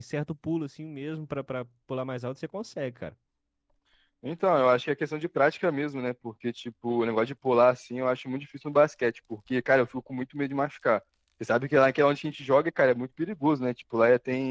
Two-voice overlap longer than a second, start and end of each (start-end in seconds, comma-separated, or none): none